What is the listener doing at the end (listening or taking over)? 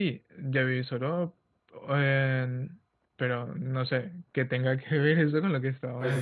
taking over